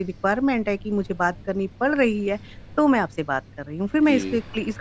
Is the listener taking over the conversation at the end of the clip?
Yes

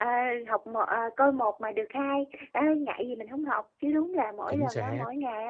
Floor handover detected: No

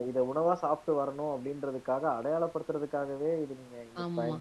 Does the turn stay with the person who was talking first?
No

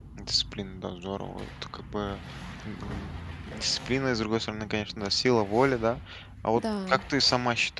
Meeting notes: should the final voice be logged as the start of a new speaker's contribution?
No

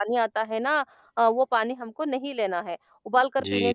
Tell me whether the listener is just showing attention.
Yes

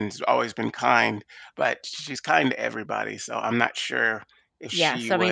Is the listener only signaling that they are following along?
No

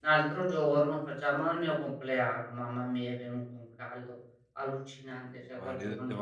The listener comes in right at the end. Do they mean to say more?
Yes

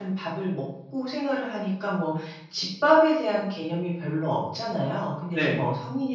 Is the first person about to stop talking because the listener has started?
No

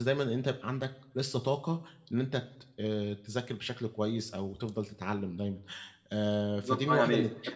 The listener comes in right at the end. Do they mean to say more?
Yes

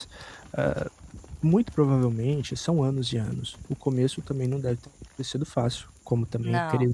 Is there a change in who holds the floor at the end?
No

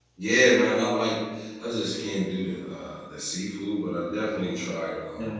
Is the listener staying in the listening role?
Yes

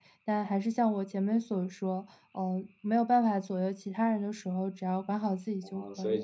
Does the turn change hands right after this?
Yes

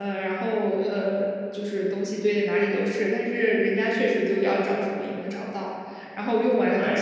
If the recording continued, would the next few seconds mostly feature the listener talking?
No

